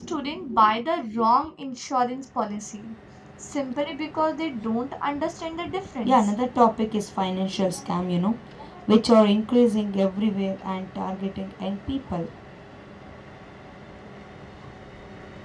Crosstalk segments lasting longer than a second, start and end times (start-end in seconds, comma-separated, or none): none